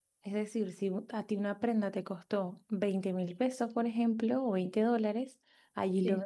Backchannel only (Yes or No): Yes